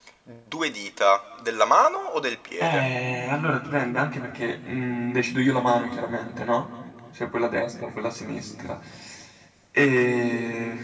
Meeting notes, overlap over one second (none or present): none